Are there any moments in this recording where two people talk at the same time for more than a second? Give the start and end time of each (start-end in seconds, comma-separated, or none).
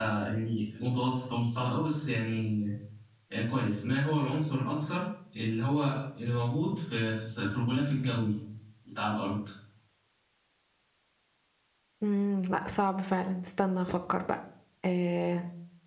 none